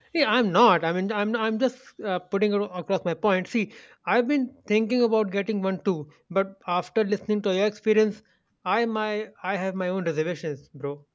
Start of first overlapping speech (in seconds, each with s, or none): none